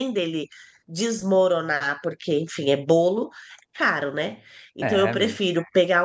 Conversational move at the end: listening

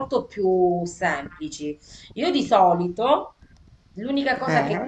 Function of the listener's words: listening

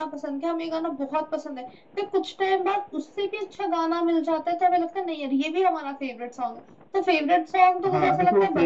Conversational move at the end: taking over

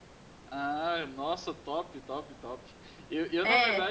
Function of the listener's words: listening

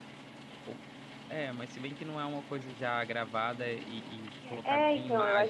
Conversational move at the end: taking over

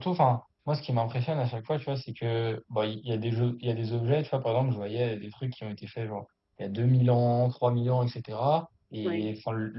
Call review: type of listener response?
listening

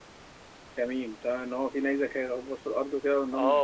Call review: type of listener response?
taking over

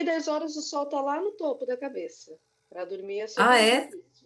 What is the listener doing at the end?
listening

